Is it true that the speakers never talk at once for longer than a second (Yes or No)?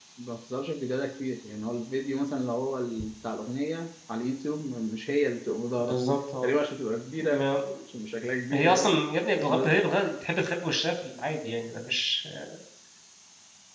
Yes